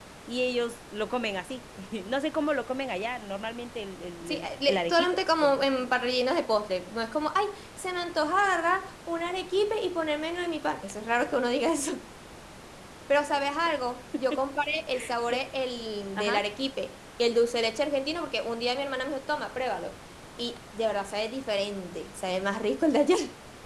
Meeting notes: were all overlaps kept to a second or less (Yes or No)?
No